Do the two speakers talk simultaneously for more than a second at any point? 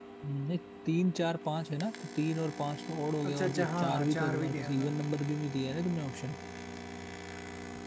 Yes, from 3.2 s

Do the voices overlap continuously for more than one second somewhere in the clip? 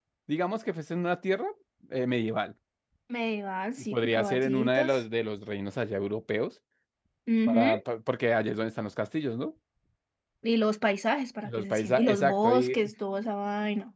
Yes, from 3.8 s

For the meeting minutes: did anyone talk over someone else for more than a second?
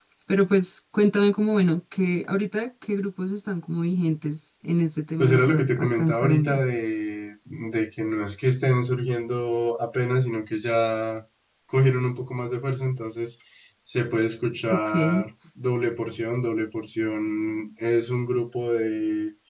Yes, from 5.2 s

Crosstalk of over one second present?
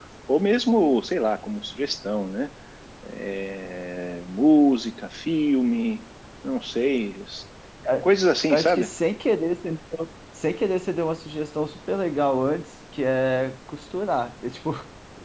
No

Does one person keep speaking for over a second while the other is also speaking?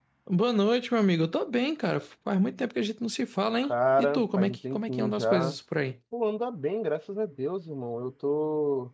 Yes, from 3.6 s

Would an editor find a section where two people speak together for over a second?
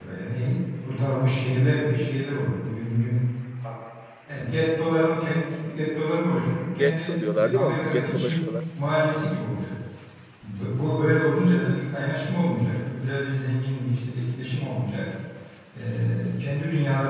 Yes, from 6.8 s

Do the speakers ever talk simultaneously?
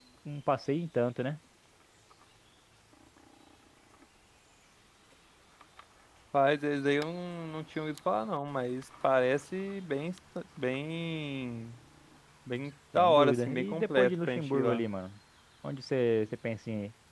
Yes, from 12.9 s

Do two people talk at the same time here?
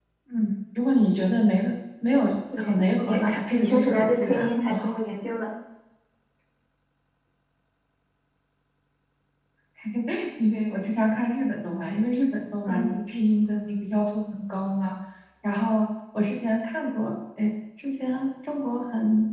Yes, from 2.5 s

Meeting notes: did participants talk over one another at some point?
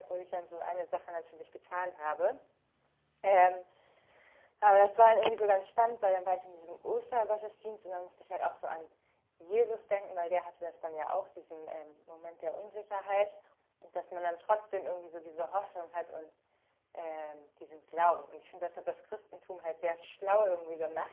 No

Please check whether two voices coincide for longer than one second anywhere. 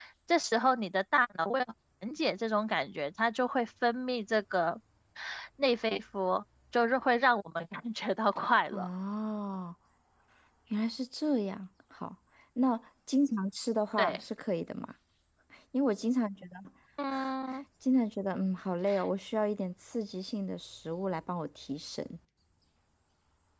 No

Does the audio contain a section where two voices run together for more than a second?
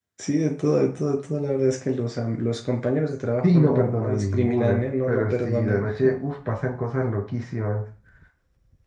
Yes, from 3.4 s

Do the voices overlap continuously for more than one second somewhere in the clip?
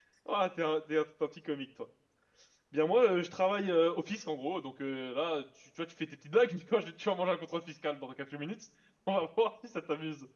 No

